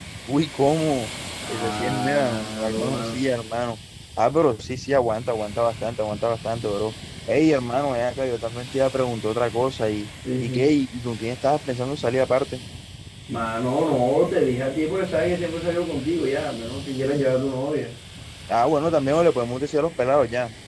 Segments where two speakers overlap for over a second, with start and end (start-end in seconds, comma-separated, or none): 1.5-3.2